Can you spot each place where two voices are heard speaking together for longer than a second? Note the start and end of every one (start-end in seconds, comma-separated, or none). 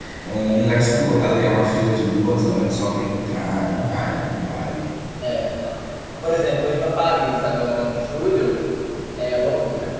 none